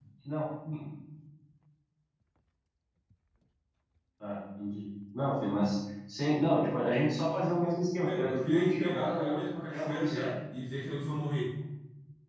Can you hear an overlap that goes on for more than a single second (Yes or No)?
Yes